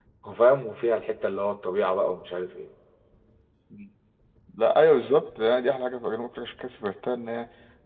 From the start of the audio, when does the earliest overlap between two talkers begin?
none

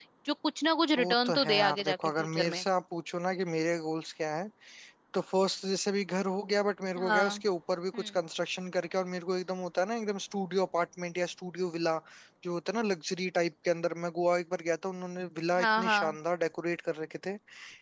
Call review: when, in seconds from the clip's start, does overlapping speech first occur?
1.0 s

